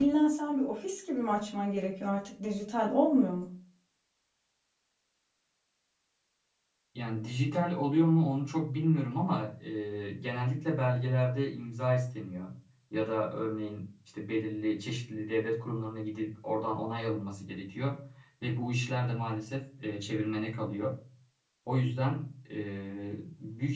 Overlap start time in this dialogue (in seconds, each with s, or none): none